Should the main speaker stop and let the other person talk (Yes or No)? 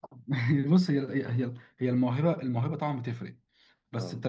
No